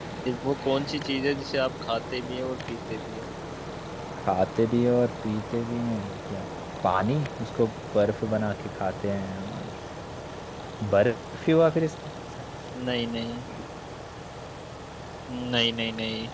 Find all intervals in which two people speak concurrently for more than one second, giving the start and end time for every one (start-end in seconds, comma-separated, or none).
none